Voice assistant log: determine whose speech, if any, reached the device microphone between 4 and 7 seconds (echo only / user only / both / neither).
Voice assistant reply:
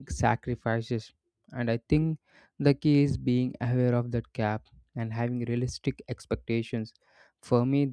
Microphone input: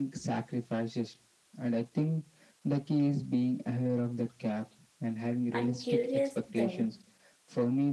both